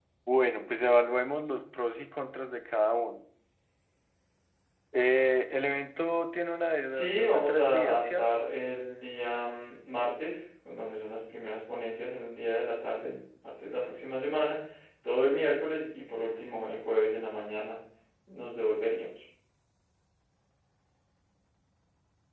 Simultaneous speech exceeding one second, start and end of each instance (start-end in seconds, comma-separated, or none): 6.9-8.5